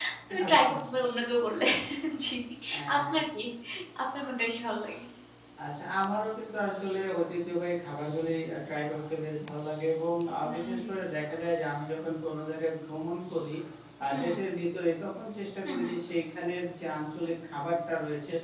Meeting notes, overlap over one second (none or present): none